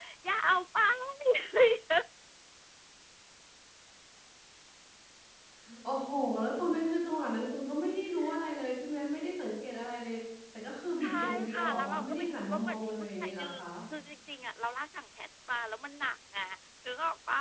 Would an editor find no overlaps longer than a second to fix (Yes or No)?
No